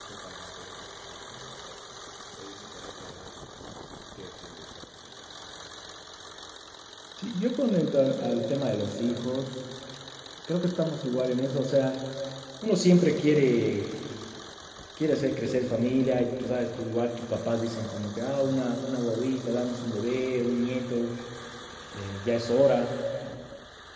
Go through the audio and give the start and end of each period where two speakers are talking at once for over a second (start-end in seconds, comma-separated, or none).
none